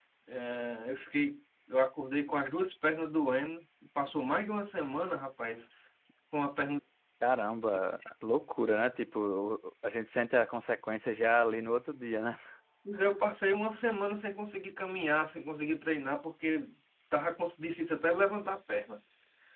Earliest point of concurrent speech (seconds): none

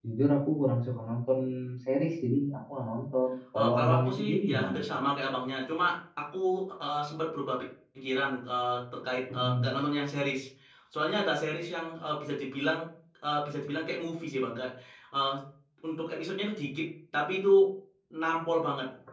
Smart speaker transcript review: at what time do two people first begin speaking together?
3.5 s

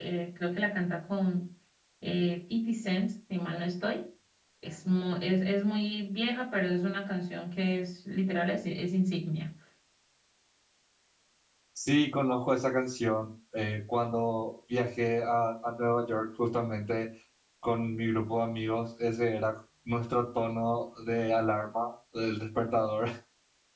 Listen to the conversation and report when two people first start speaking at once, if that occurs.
none

